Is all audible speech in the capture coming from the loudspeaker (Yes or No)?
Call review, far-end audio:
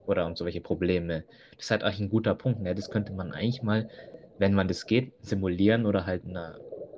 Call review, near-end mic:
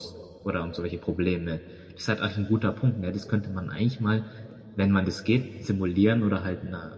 Yes